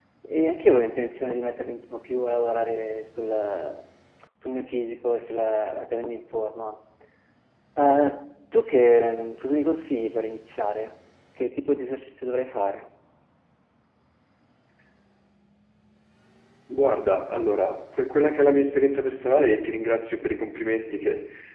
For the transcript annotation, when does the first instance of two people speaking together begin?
none

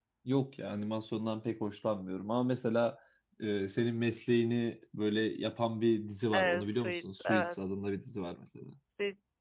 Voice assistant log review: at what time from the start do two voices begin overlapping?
6.3 s

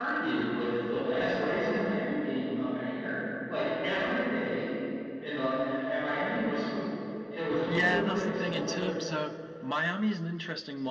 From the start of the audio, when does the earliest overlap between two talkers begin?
7.7 s

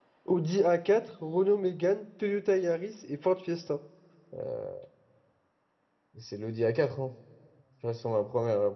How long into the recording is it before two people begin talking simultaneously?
none

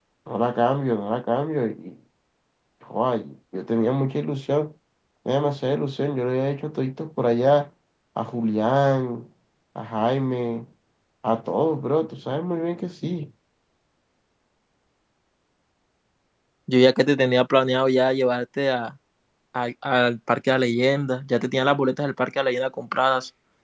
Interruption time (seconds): none

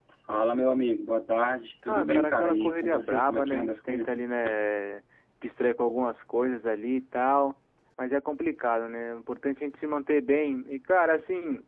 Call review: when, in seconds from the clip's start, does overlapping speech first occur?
1.9 s

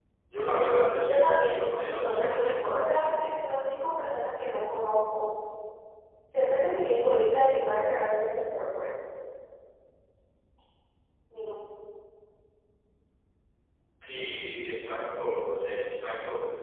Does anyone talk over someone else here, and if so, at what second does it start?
1.0 s

